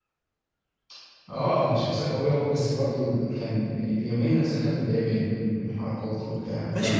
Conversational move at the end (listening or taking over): taking over